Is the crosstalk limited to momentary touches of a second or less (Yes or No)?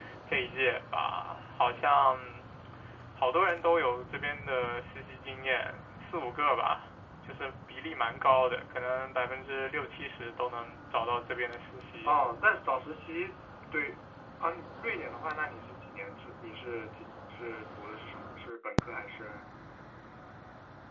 Yes